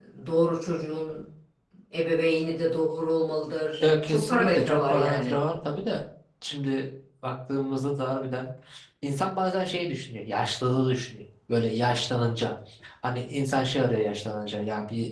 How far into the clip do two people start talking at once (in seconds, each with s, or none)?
3.8 s